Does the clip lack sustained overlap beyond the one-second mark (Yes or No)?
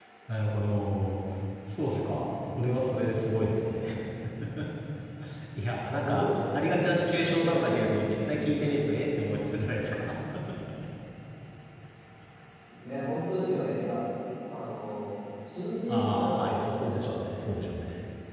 No